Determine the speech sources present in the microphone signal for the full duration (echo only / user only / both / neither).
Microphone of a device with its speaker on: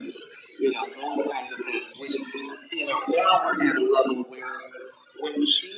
echo only